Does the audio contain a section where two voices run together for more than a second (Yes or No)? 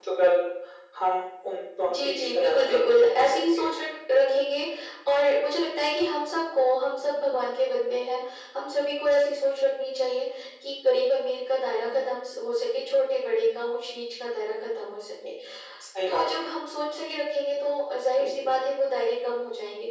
Yes